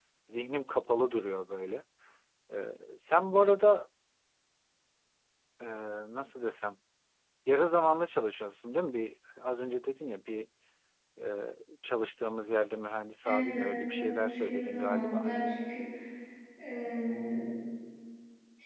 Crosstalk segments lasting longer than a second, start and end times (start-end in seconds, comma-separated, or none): 13.2-15.3